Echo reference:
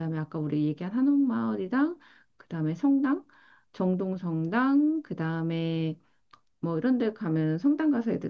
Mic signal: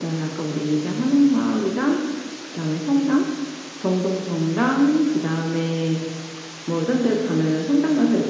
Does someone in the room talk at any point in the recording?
No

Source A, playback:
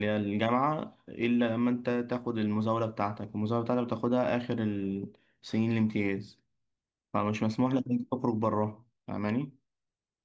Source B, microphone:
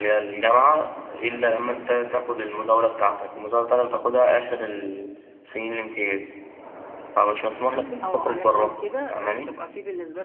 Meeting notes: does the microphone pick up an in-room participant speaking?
Yes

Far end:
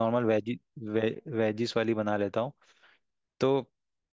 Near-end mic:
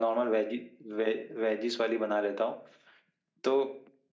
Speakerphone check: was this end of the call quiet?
Yes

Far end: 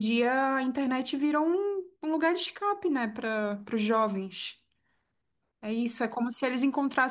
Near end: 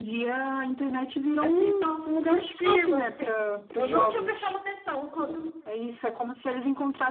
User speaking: Yes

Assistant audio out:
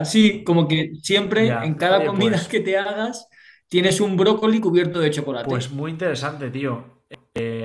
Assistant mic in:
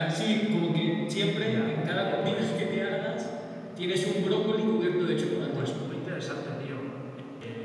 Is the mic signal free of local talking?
Yes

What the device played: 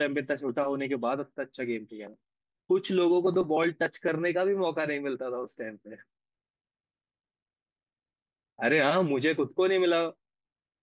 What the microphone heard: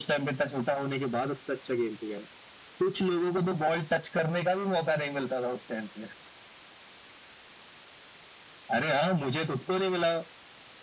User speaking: No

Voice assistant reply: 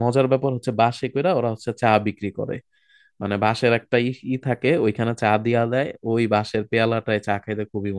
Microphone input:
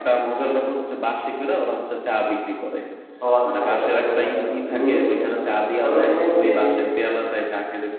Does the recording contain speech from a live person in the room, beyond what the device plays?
Yes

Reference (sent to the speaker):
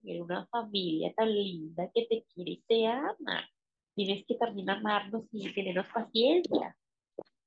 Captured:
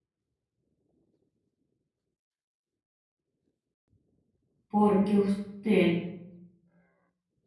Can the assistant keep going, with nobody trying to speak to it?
No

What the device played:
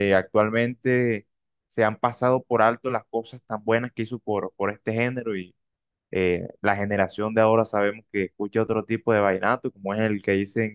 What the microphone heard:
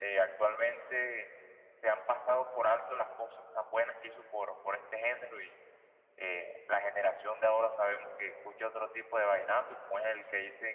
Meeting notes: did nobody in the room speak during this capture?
Yes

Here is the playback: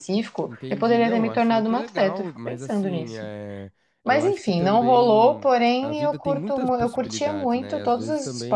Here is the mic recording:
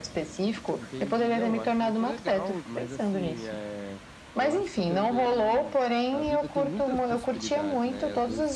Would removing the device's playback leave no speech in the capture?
Yes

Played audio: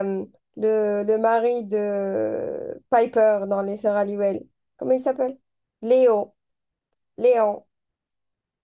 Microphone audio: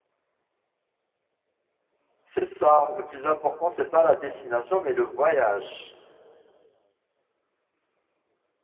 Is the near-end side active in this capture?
Yes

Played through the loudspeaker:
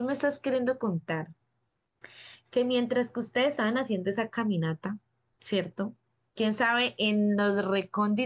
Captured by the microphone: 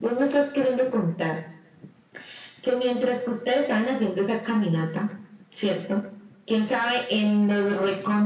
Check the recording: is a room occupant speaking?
No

